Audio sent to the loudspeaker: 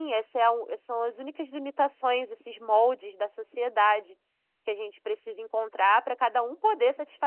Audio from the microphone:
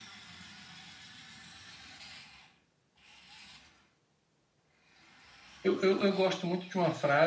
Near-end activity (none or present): present